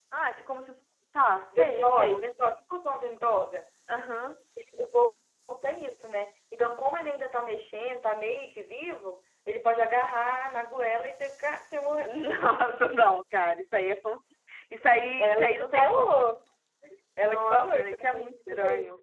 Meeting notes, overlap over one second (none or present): present